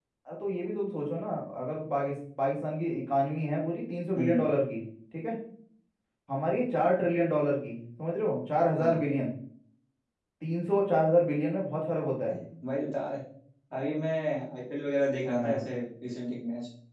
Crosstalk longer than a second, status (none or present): none